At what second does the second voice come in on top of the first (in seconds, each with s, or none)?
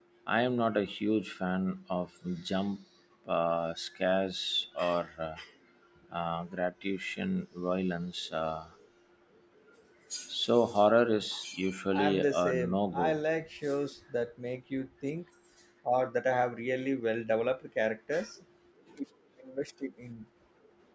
11.9 s